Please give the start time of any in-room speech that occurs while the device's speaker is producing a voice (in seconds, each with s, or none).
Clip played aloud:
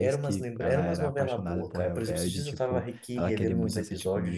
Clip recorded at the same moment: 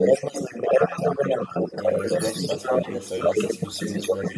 1.8 s